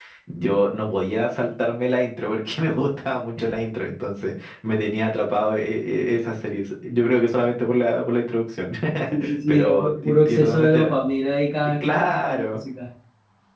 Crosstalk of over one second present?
Yes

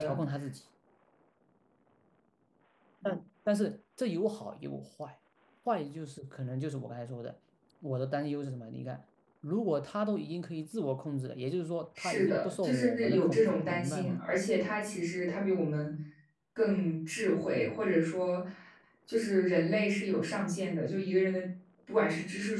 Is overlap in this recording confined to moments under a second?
No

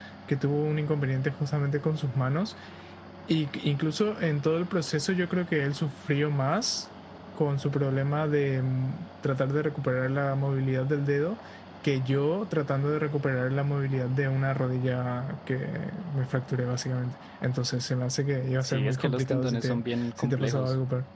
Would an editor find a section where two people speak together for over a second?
Yes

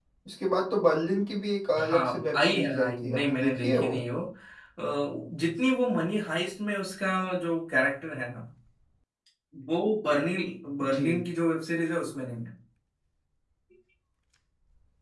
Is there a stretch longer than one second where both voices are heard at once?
Yes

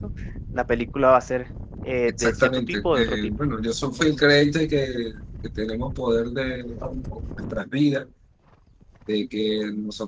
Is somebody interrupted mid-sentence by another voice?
Yes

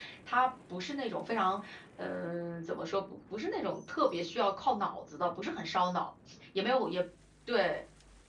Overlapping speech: No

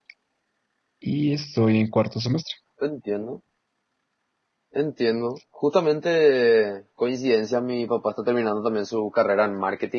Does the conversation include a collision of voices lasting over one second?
No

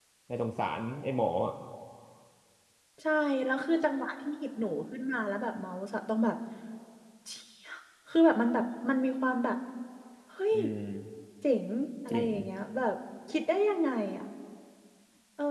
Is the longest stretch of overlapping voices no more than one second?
Yes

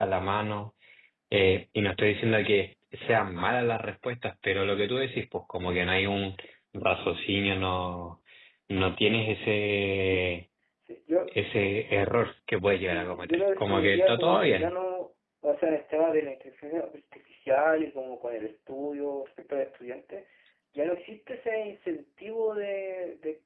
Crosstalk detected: Yes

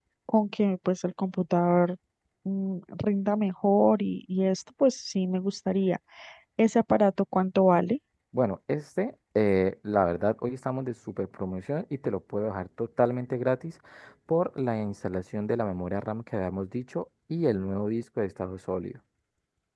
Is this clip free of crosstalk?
Yes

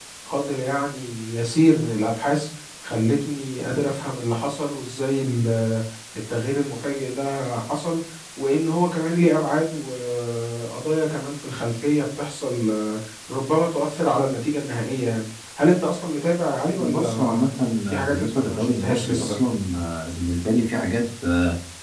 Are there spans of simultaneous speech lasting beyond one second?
Yes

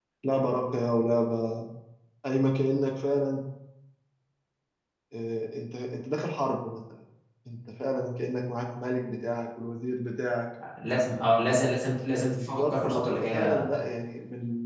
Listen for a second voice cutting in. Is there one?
Yes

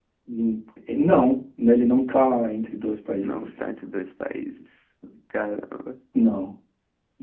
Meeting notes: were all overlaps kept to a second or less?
Yes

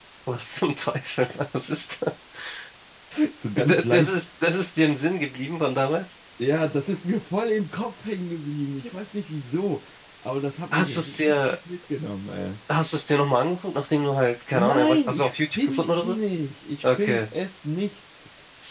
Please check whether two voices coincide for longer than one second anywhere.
Yes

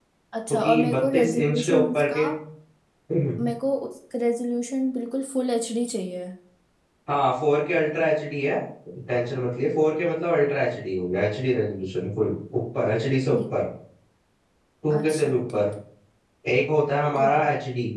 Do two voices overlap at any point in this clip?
Yes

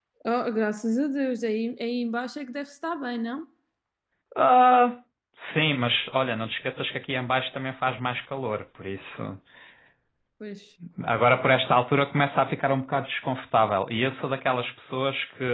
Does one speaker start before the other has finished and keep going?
No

